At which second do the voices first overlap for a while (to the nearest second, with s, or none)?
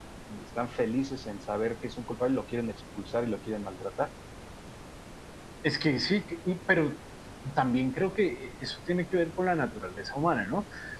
none